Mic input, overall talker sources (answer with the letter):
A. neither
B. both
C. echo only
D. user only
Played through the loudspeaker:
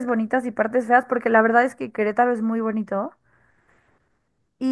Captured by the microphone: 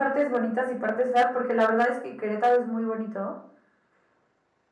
C